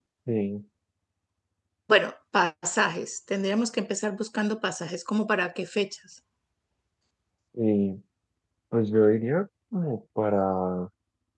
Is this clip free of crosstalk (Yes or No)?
Yes